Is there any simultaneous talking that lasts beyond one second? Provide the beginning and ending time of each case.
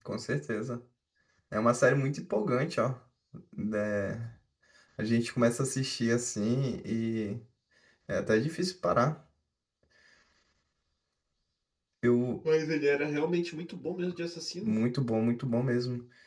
none

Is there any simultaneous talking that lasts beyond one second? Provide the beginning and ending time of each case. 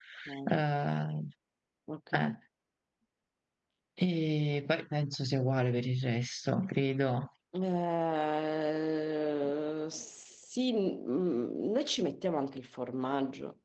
none

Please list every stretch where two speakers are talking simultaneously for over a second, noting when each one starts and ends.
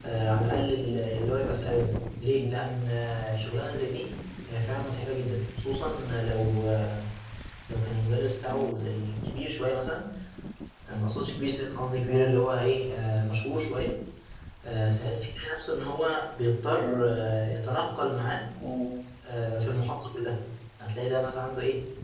none

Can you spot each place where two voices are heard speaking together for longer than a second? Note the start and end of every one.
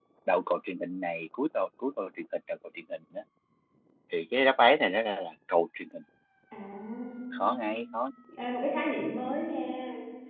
none

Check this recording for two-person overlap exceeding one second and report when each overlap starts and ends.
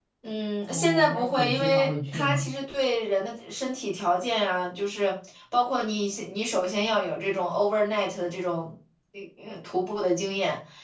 0.7-2.5

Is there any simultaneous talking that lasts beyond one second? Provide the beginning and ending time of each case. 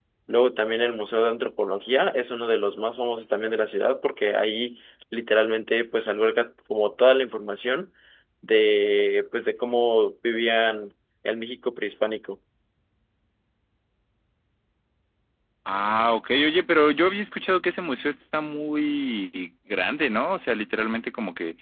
none

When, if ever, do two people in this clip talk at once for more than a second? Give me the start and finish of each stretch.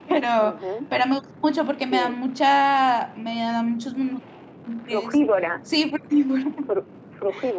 none

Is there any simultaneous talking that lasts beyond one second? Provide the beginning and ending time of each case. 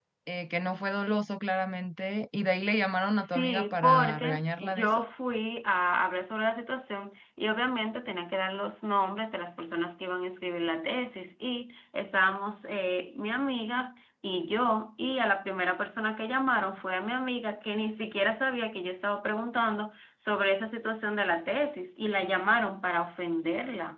3.1-5.0

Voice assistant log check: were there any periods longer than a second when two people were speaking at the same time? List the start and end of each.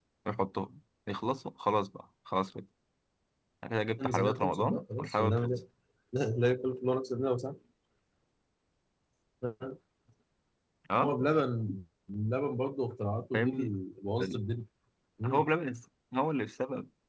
4.0-5.6

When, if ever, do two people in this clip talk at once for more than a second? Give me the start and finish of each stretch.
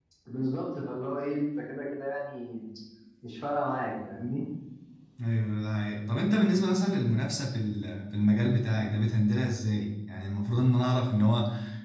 none

